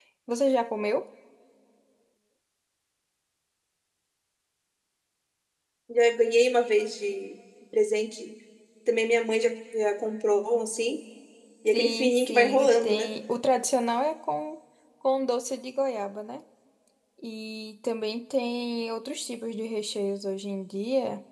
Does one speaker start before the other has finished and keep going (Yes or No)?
Yes